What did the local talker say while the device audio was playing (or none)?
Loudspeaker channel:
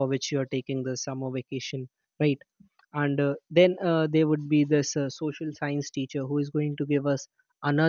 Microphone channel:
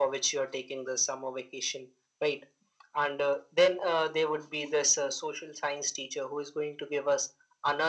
none